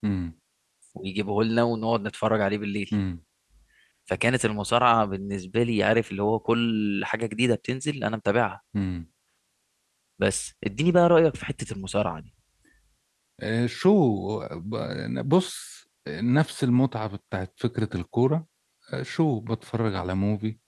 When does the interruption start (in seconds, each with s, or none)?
none